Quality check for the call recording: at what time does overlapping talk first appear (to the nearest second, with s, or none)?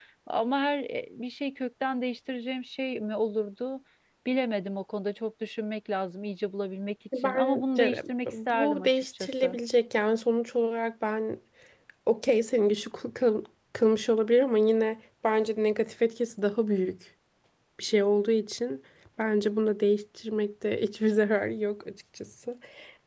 7 s